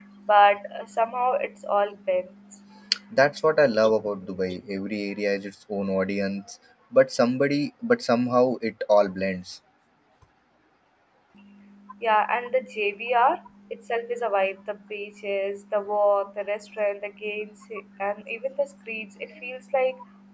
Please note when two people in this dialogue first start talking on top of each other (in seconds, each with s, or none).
none